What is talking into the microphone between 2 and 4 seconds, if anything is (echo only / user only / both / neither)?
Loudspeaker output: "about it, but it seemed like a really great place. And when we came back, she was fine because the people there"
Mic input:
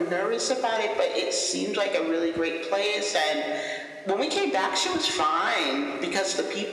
echo only